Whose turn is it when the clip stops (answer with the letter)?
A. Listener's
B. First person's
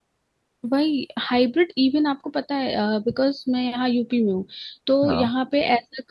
B